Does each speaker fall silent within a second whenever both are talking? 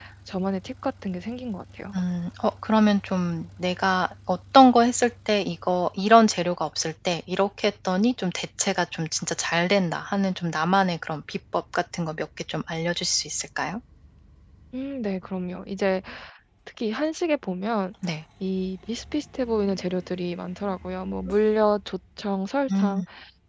Yes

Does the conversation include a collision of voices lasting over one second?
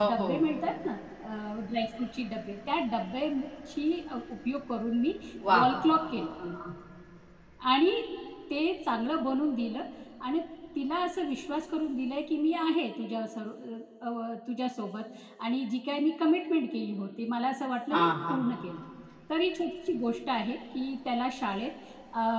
No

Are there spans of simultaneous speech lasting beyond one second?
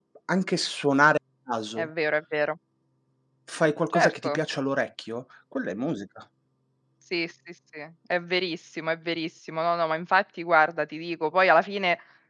No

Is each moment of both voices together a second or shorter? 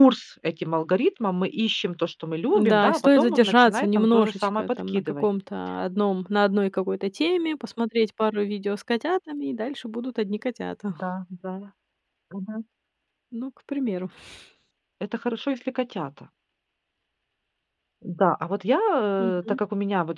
No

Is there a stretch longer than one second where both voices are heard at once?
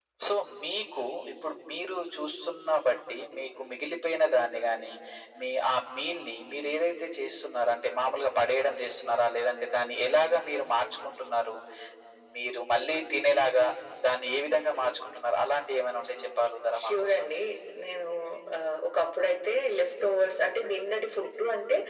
No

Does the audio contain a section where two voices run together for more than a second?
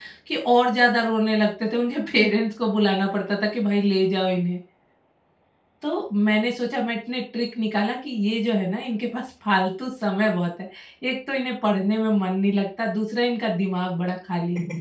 No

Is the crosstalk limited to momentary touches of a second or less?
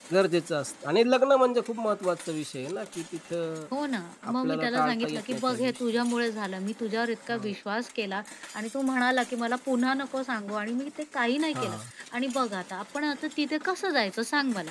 No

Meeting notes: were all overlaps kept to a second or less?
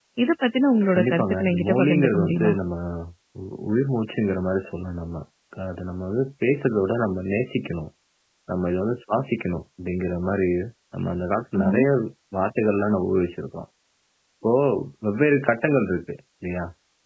No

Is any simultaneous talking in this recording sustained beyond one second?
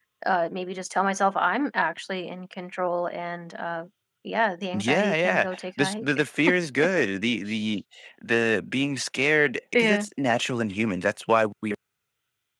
Yes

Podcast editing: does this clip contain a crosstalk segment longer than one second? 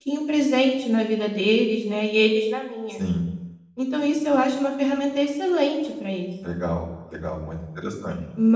No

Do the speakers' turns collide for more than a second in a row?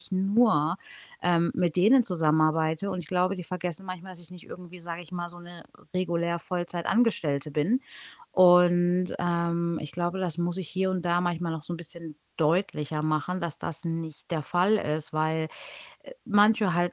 No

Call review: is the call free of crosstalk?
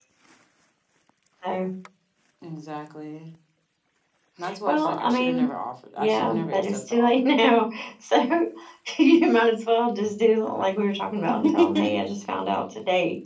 No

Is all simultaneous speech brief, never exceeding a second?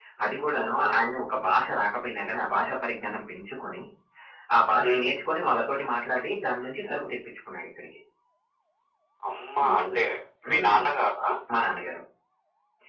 Yes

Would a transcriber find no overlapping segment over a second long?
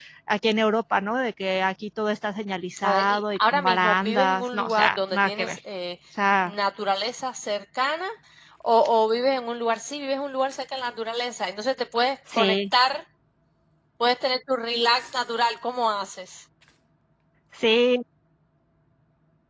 No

